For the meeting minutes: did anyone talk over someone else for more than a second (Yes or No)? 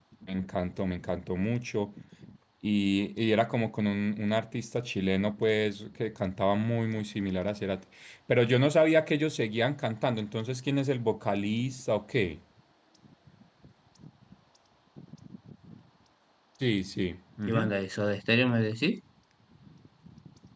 No